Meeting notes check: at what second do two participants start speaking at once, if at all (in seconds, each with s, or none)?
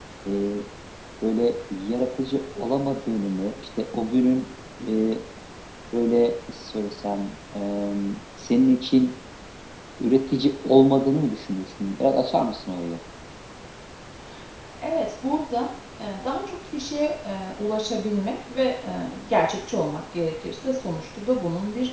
none